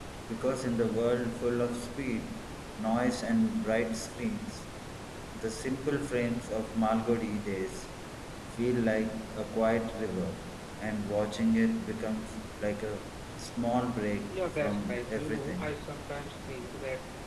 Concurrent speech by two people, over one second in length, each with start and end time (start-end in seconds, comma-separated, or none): 14.3-15.8